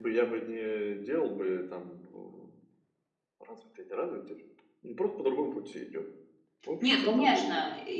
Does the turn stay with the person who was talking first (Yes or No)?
No